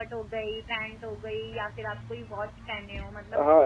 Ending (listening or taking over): taking over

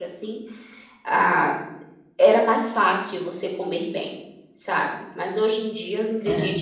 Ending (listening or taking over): listening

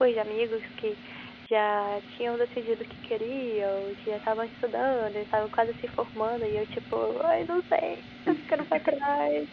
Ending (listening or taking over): listening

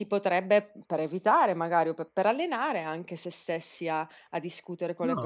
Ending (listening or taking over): taking over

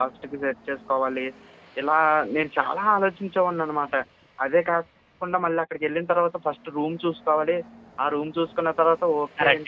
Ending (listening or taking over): taking over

